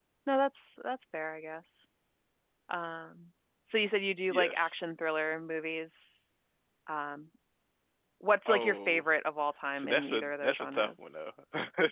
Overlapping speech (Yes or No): Yes